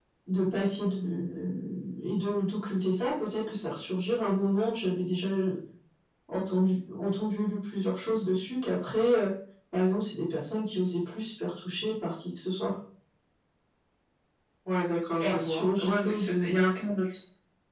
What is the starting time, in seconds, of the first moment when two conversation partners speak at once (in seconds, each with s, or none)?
15.1 s